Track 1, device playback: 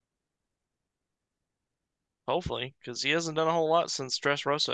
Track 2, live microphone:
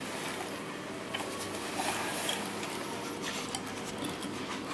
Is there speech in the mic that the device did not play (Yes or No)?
No